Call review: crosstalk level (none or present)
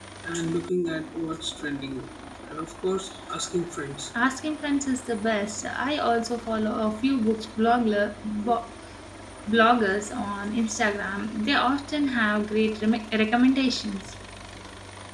none